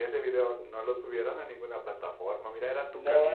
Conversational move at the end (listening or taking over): taking over